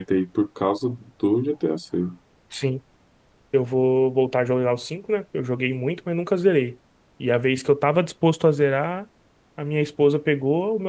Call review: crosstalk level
none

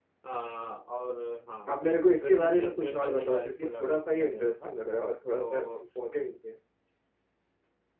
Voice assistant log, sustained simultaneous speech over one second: present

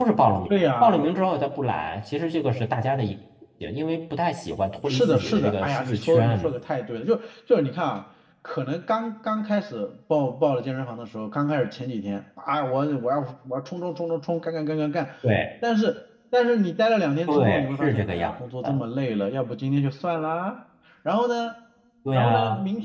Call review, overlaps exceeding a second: present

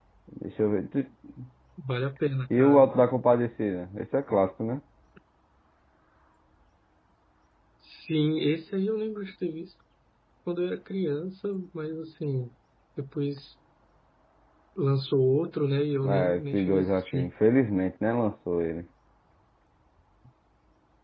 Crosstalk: present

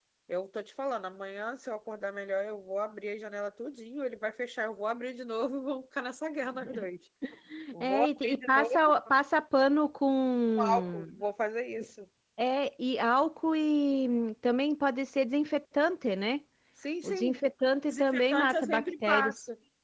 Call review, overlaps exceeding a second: present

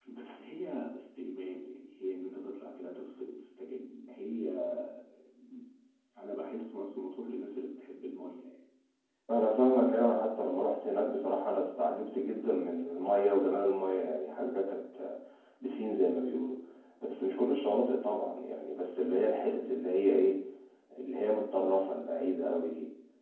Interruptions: none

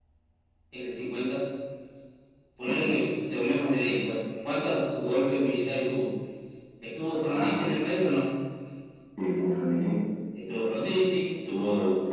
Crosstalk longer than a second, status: none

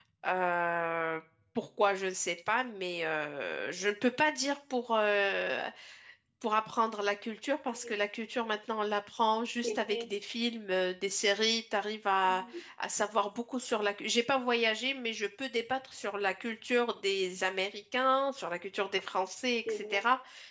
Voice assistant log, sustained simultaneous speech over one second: none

